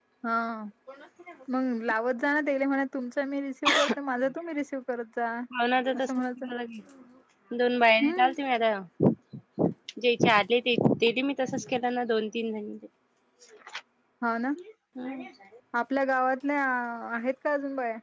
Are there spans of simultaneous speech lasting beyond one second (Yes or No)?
No